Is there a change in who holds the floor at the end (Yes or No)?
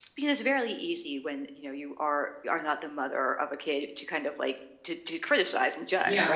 Yes